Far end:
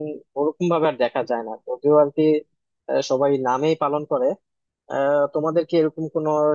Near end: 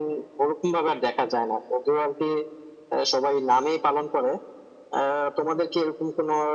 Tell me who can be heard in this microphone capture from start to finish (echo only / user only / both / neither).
echo only